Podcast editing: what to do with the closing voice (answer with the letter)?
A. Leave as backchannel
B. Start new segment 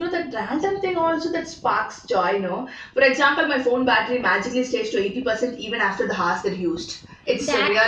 B